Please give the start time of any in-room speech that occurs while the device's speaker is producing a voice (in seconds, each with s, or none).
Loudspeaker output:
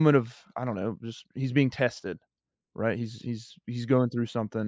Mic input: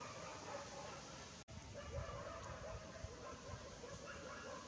none